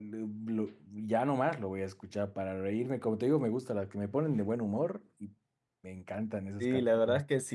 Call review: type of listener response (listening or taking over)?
taking over